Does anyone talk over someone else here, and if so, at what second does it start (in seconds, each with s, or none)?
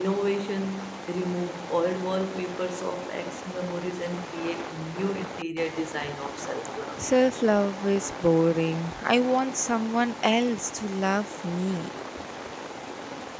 none